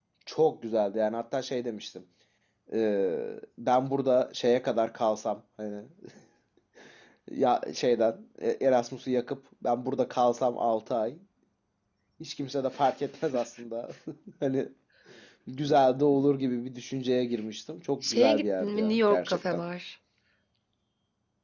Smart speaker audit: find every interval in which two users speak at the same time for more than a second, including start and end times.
18.0-19.6

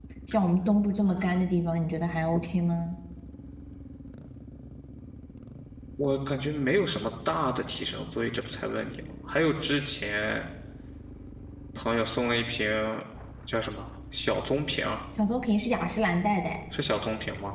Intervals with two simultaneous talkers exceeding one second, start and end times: none

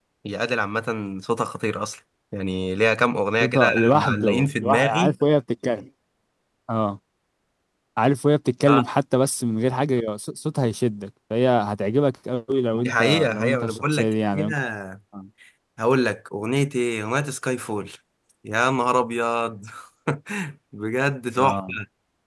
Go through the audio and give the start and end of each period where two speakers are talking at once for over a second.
3.4-5.2, 12.8-14.5

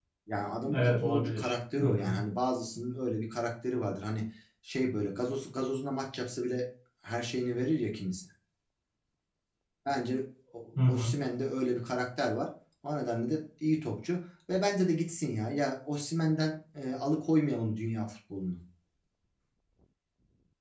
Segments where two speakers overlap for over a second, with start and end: 0.7-2.1

